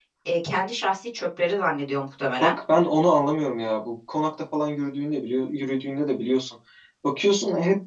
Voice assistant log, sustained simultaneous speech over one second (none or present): none